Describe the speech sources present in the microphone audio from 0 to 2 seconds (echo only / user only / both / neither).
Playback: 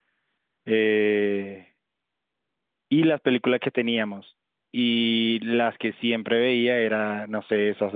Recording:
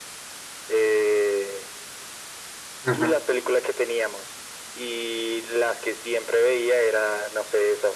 echo only